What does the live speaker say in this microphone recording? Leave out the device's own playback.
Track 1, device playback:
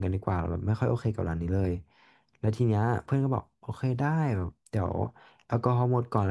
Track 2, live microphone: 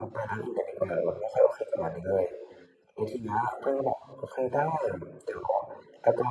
none

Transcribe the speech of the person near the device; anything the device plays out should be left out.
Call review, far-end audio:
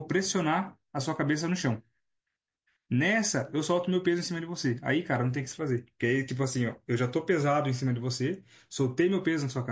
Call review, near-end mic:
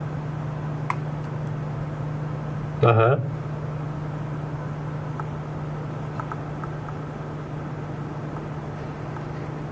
Aham,

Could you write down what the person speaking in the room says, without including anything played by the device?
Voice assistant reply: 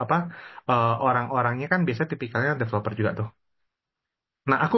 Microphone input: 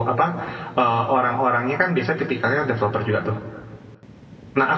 none

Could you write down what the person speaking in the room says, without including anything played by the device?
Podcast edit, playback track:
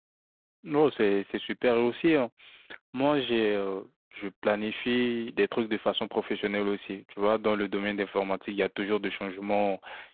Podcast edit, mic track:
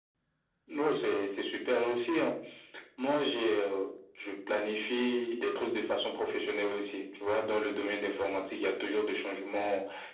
none

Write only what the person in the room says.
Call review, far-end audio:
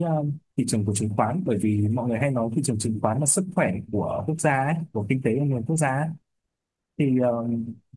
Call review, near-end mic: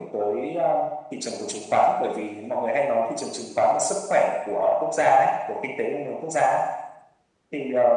none

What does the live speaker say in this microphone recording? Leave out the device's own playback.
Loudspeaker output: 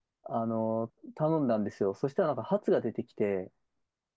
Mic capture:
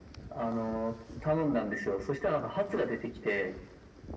none

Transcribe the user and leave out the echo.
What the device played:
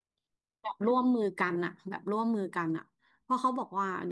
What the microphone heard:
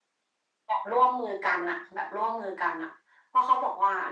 none

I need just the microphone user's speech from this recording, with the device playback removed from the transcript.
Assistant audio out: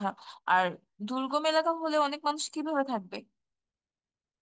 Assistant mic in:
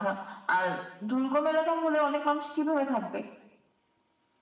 none

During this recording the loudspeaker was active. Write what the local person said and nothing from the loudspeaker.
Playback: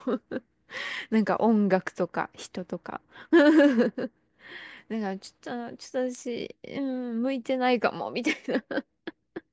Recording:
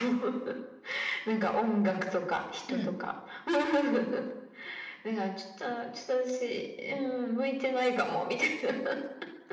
うん。

